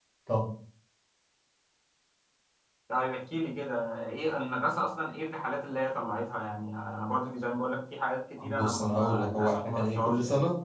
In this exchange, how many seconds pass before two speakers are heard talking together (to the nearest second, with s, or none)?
8 s